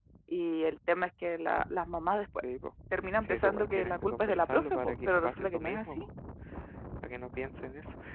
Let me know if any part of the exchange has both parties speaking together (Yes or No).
Yes